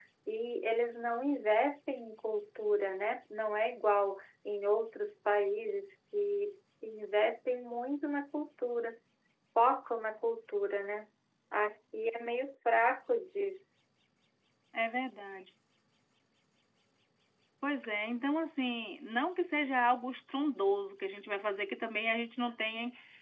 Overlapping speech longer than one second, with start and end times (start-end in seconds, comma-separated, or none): none